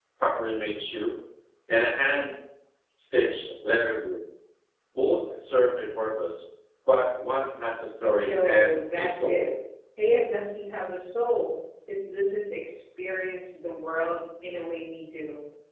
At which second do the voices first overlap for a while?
8.0 s

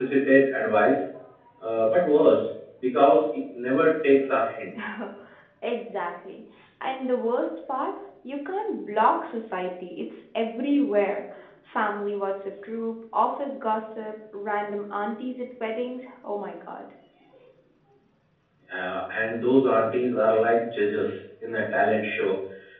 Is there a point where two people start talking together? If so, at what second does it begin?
none

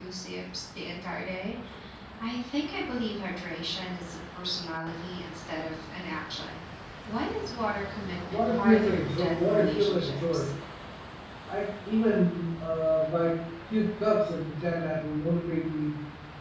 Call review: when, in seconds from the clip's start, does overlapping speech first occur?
8.3 s

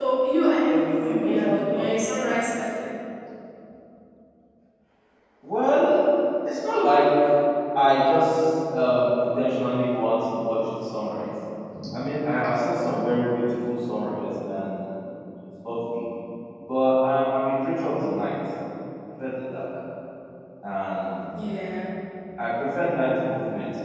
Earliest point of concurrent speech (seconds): 0.7 s

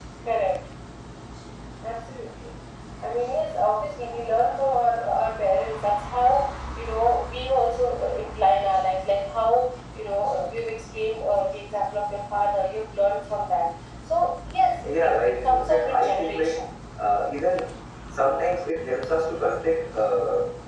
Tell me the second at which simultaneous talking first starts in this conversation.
14.8 s

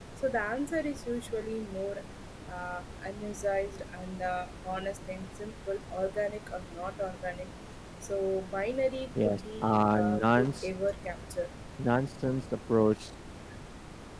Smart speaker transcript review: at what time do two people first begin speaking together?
9.2 s

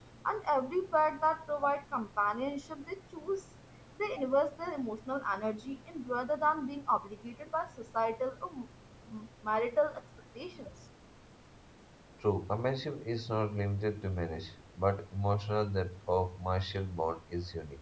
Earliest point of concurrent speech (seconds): none

